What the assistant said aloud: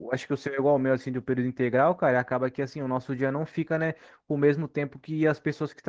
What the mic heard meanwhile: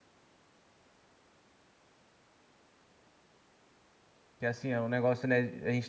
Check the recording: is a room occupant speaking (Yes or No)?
Yes